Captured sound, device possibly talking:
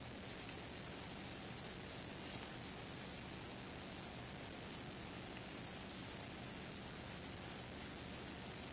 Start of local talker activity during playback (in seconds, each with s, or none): none